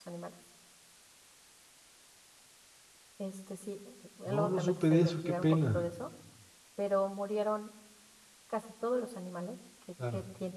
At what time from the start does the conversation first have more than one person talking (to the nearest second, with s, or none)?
4 s